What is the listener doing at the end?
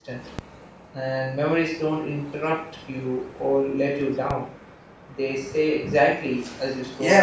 taking over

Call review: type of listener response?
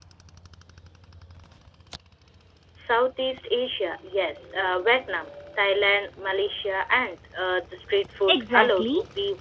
taking over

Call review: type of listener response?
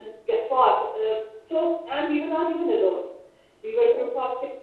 listening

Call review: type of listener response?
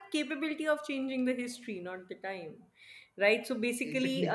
listening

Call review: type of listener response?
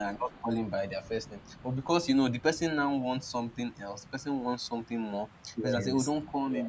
listening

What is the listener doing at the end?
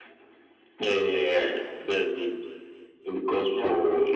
listening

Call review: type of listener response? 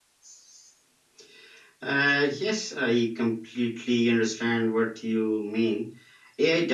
listening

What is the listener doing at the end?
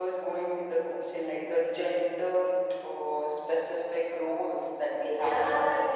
taking over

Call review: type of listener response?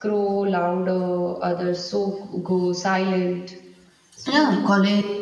taking over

